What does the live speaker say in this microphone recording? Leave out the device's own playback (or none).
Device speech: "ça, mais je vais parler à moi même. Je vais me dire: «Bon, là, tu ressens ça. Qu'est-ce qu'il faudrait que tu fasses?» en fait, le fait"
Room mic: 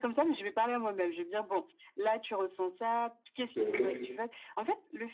OK.